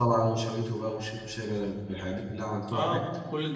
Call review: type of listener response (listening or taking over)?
taking over